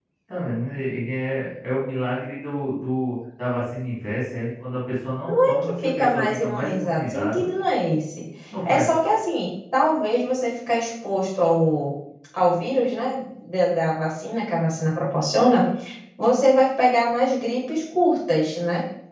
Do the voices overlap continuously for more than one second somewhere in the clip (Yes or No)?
Yes